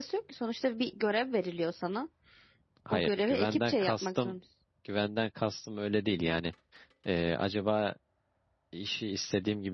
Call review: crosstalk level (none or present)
present